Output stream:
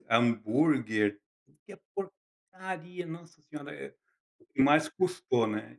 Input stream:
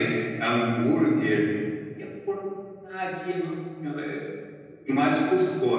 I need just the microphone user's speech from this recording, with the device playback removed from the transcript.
none

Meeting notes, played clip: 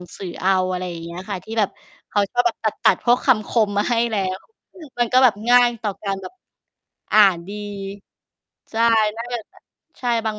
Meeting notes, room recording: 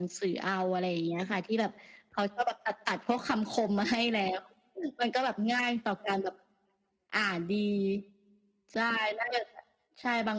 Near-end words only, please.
none

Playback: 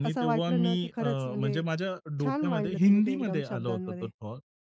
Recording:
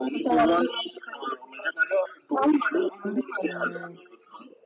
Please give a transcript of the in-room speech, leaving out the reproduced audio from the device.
हां.

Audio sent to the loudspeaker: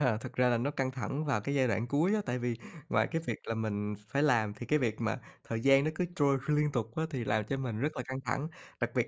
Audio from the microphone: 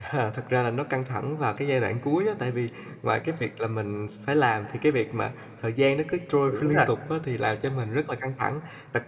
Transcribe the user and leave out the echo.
Đúng rồi.

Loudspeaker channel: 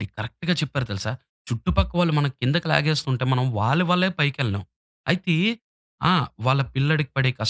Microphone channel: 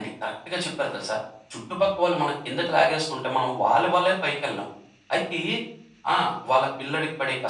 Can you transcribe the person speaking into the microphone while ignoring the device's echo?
none

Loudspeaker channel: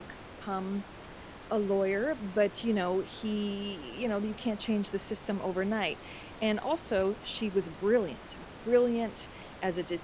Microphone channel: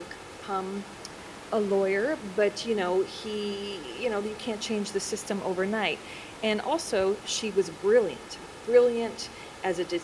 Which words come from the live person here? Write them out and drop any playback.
none

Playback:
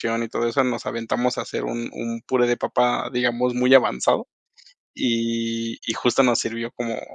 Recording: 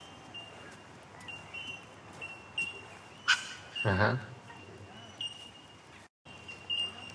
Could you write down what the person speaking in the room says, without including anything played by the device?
Ajá.

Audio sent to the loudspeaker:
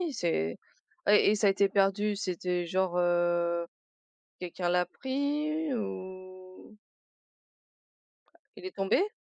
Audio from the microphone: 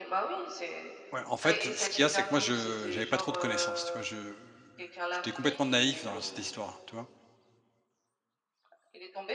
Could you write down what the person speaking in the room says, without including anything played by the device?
Ouais en fait, ce qu'il y a, c'est que moi je j'avais pas trop de connaissances, tu vois? Je j'étais complètement naïf dans cette histoire, tu vois?

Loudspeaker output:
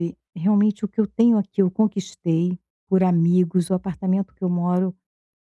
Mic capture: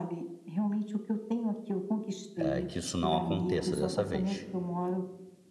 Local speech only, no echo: hã, que isso não aconteça dessa vez.

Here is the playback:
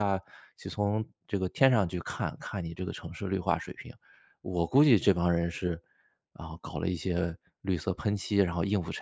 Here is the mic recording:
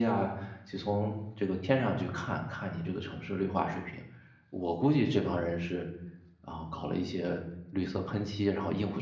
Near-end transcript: none

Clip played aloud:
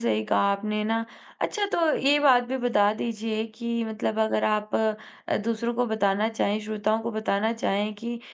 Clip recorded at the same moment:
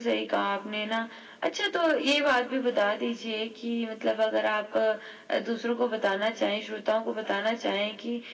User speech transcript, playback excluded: none

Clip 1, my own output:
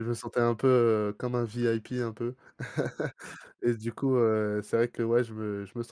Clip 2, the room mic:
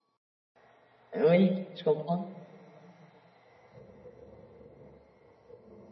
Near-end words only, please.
Oui je comprends.

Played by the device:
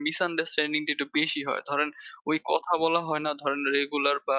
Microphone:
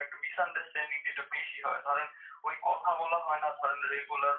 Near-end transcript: none

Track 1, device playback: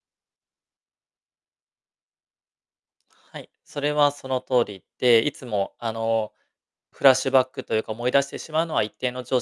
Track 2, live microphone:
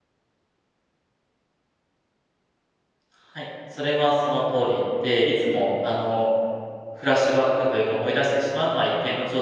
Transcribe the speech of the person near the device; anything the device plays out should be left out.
none

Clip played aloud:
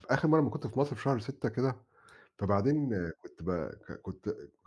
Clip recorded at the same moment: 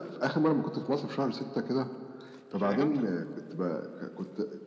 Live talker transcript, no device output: فاهم؟

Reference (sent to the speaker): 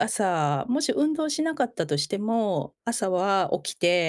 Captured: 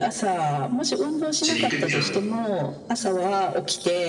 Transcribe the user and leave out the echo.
ちに行くっていうのも。

